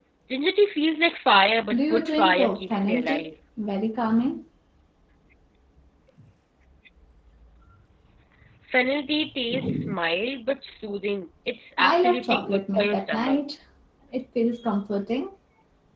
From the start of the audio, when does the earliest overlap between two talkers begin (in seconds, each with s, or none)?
1.7 s